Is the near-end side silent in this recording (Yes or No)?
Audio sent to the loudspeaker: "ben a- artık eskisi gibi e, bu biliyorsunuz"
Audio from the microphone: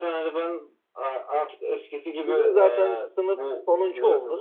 No